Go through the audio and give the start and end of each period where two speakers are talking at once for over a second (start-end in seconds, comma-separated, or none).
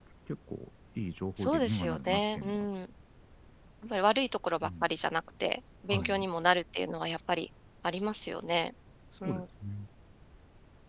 1.4-2.7